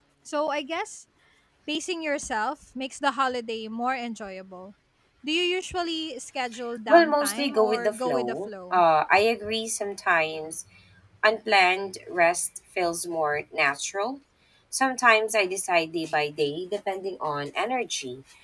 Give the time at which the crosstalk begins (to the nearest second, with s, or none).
7 s